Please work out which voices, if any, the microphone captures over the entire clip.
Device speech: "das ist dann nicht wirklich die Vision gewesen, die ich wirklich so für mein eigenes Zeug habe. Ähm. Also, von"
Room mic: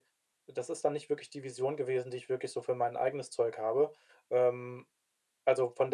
echo only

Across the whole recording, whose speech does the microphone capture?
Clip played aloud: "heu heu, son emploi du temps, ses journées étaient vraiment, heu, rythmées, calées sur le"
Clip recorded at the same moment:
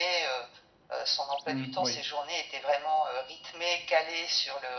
both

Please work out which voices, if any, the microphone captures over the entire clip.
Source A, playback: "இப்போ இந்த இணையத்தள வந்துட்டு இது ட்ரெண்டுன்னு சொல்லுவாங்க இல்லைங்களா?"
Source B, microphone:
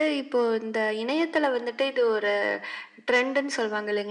echo only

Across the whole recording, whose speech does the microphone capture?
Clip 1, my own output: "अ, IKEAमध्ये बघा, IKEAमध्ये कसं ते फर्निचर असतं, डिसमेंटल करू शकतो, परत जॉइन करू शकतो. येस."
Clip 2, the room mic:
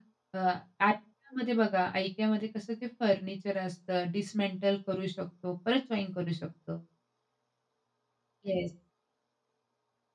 echo only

